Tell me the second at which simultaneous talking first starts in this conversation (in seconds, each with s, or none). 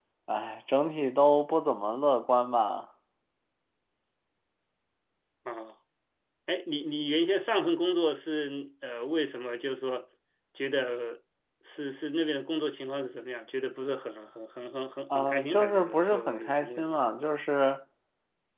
15.1 s